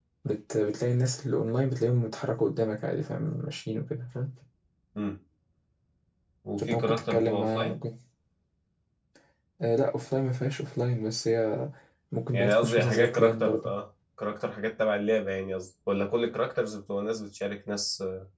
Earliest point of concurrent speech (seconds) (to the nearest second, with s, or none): 7 s